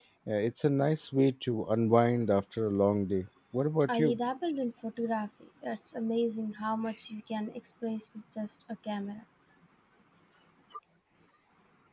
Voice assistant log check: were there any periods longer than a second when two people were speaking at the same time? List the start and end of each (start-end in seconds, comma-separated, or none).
none